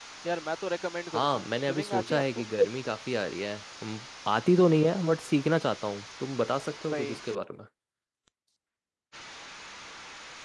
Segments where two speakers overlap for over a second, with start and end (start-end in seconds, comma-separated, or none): 1.1-2.4